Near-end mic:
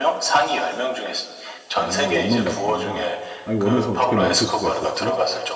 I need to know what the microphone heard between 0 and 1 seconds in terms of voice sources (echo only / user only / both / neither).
echo only